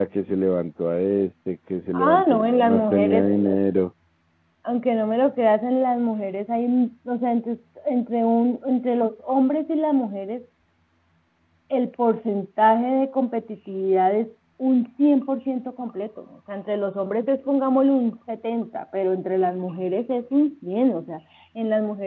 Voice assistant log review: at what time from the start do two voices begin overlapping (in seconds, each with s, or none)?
1.9 s